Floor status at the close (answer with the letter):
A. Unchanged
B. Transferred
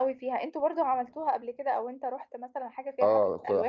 B